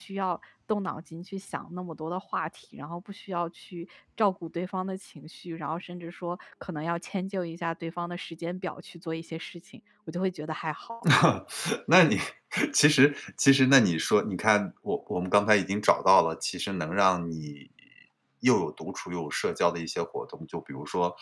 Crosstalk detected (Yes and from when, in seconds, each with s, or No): No